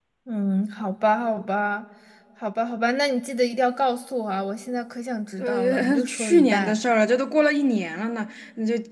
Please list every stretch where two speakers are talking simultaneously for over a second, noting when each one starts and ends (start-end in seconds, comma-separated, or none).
5.4-6.8